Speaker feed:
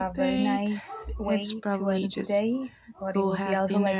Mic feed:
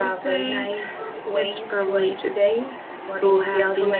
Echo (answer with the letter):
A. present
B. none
A